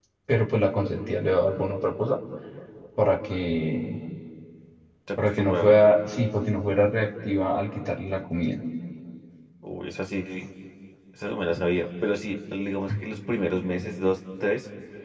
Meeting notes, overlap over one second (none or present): none